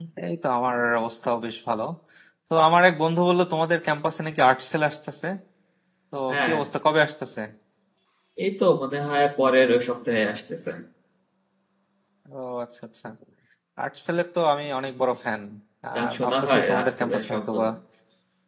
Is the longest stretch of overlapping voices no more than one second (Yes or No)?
No